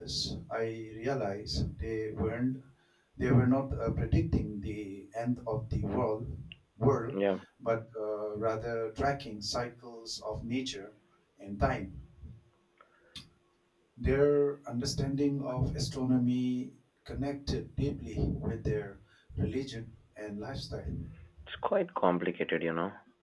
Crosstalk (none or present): none